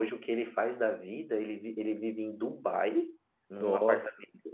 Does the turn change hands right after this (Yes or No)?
No